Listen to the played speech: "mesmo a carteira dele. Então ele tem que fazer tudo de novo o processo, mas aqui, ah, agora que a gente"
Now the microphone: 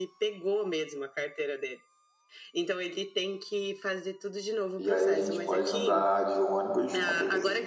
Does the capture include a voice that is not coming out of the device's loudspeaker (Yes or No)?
Yes